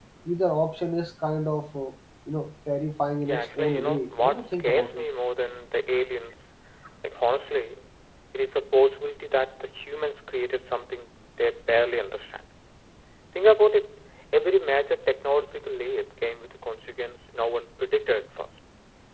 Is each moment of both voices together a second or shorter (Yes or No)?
No